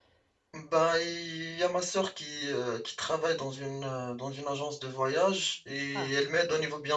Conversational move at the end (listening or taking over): listening